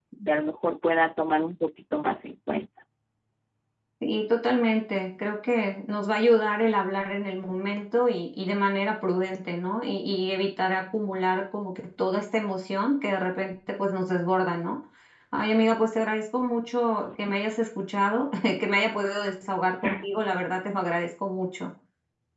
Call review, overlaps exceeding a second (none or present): none